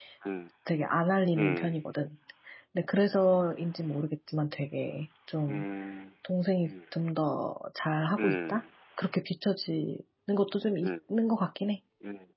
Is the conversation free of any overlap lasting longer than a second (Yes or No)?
Yes